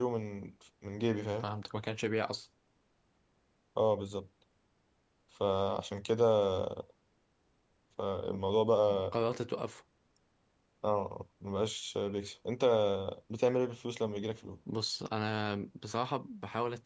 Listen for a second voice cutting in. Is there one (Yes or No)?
No